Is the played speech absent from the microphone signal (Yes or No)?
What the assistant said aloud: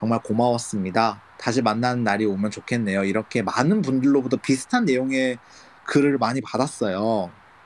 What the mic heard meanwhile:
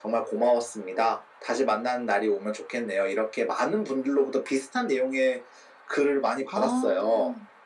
No